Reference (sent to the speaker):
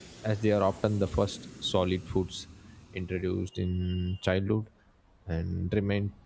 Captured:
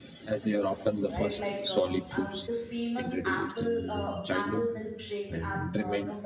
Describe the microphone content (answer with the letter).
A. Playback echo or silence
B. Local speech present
B